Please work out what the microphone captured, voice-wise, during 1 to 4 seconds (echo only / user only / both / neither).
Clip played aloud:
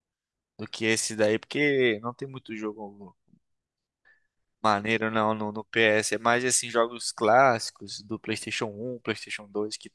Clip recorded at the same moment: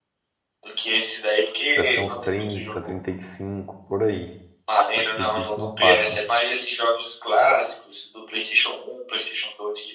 both